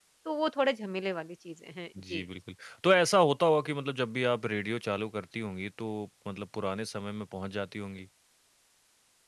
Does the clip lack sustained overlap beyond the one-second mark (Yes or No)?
Yes